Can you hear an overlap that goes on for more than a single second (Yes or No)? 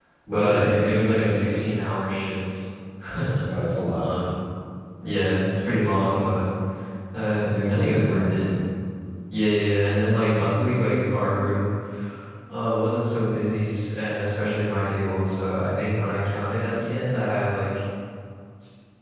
Yes